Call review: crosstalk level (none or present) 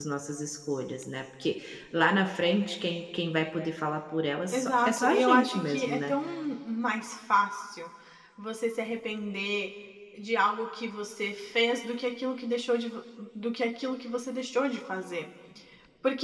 present